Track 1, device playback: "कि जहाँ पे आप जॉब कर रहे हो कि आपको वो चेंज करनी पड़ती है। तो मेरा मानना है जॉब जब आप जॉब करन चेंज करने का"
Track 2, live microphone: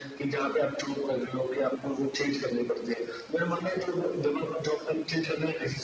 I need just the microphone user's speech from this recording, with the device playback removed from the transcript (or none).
none